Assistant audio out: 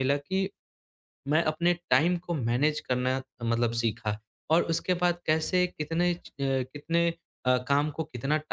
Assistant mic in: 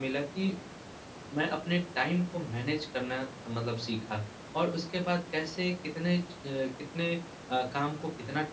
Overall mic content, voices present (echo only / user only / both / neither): echo only